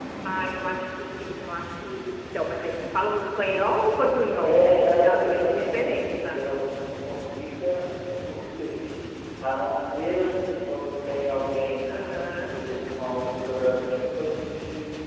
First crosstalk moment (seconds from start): 4.4 s

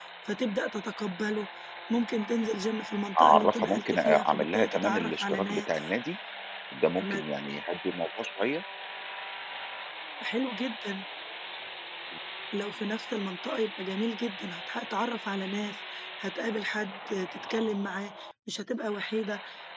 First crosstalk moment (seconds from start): 3.1 s

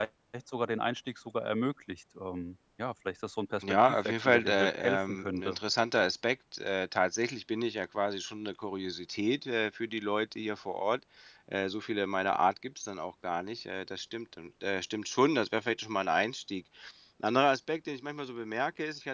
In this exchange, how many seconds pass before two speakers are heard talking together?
3.6 s

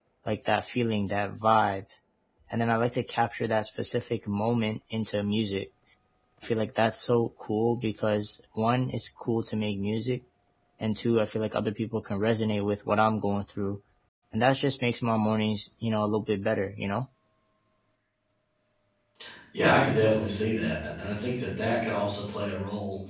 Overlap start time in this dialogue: none

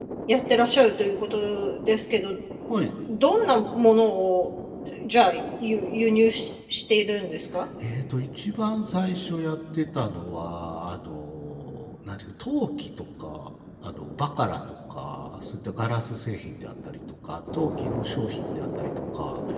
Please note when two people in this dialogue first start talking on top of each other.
none

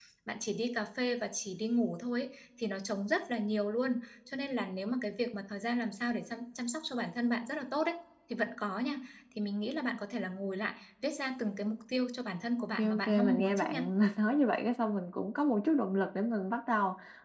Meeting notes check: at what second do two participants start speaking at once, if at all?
12.6 s

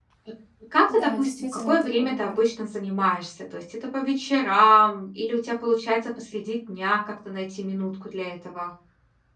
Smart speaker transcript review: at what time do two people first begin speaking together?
0.9 s

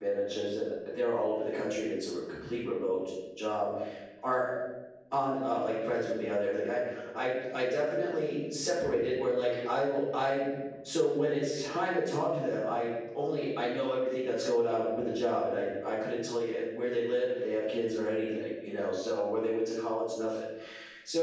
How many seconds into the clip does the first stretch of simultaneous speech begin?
none

